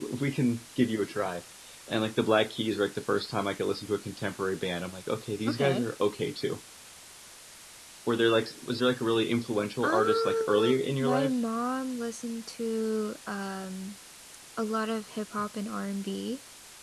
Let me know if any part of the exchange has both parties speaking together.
Yes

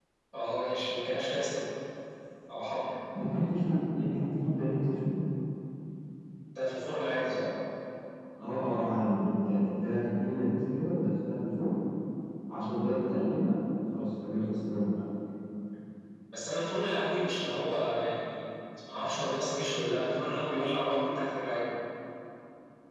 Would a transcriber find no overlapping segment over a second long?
Yes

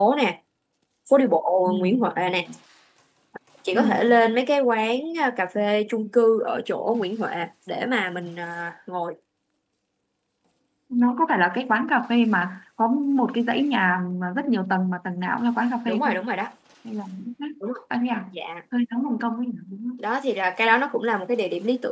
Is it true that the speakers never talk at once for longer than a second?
Yes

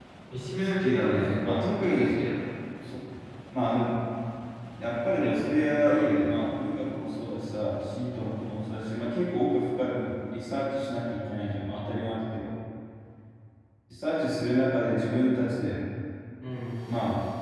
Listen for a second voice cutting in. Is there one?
Yes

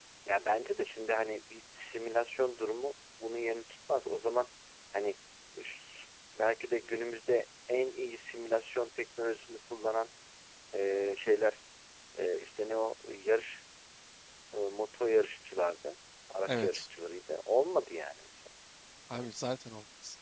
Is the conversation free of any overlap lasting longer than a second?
Yes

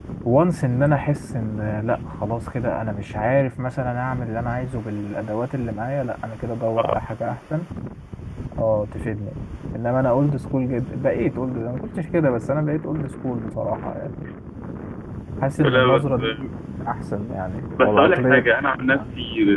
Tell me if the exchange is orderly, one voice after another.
No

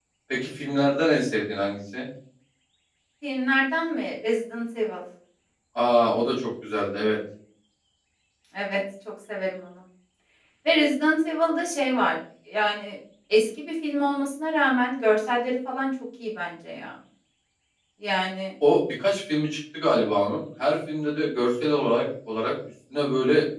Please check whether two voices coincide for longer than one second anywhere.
No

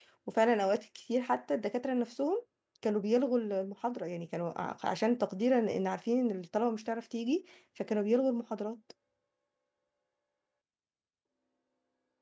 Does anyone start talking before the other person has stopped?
No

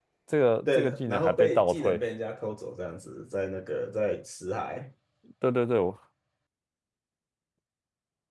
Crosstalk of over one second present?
Yes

